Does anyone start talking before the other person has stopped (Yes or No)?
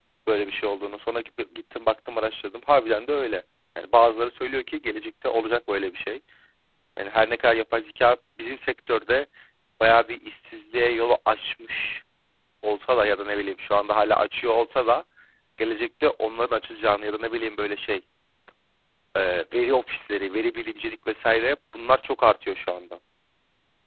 No